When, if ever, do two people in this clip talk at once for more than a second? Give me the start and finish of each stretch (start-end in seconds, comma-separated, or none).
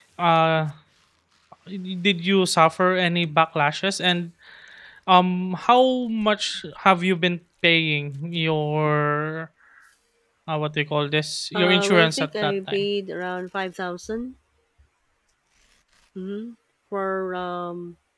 11.5-12.8